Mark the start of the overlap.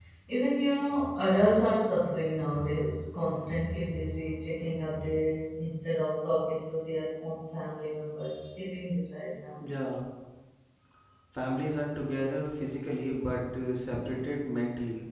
none

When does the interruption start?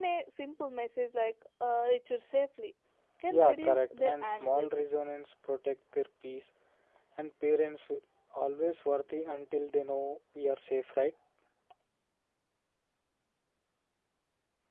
3 s

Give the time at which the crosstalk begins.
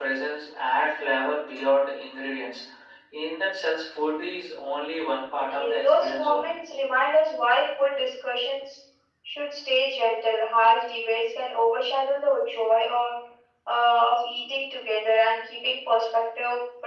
5 s

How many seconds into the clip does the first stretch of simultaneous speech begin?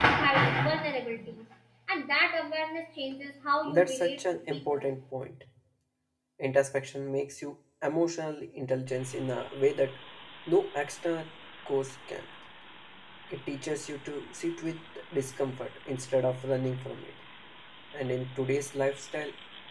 4 s

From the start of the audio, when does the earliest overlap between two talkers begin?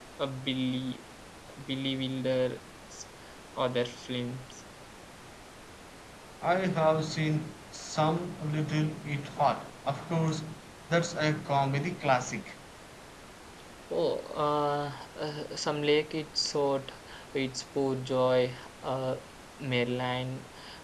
none

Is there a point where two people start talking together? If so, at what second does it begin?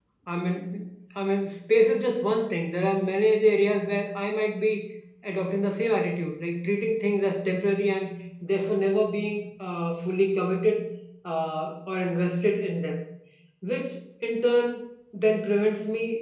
none

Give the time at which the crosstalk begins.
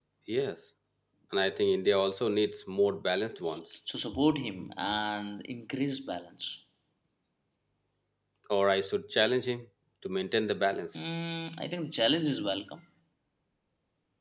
none

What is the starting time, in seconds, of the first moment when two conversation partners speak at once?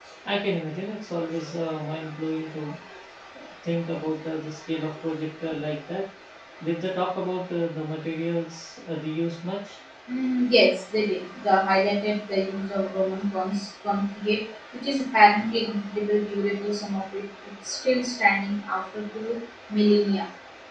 none

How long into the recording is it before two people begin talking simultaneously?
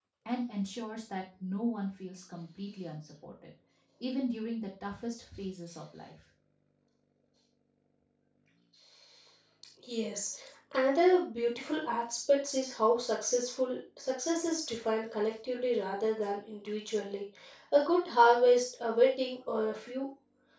none

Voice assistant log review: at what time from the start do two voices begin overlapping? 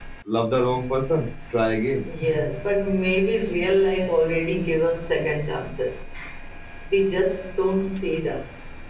none

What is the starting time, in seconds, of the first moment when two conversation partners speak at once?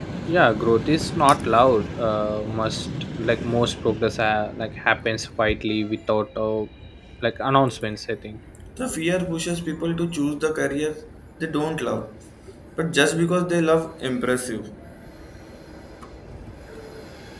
none

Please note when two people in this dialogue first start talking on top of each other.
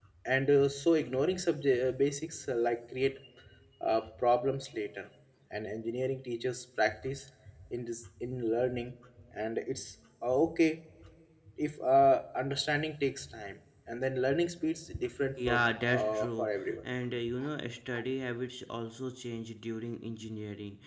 15 s

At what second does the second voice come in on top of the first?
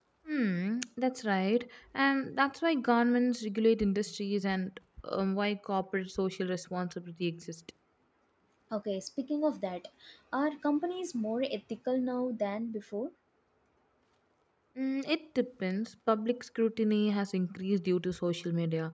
none

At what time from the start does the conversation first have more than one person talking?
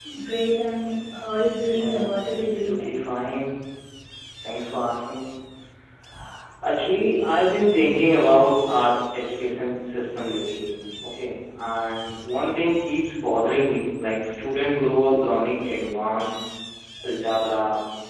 2 s

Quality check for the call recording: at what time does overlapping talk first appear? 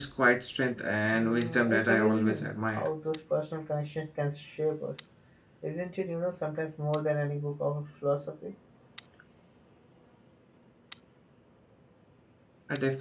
1 s

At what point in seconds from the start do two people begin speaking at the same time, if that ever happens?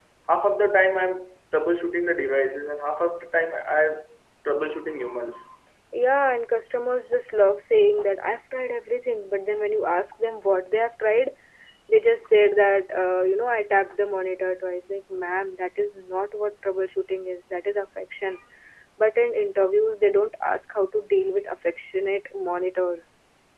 none

